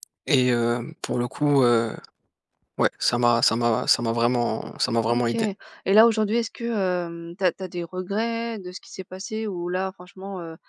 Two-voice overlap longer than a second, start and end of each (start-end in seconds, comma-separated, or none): none